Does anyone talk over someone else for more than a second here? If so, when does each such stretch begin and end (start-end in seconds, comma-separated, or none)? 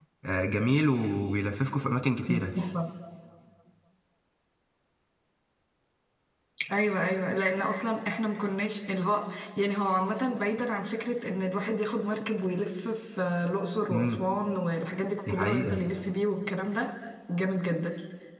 none